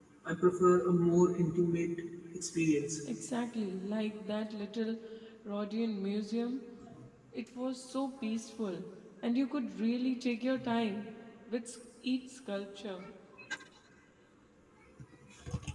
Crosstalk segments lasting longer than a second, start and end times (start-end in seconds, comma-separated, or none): none